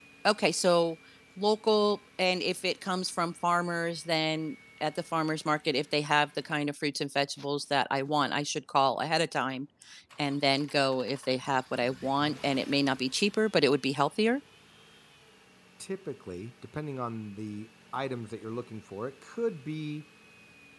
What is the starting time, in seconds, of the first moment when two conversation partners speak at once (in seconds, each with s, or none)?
none